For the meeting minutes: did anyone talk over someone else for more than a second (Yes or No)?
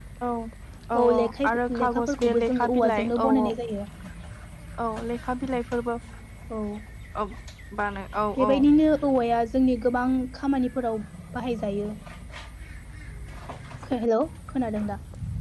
Yes